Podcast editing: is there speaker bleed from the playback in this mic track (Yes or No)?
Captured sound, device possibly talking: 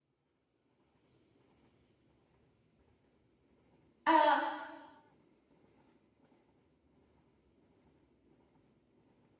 No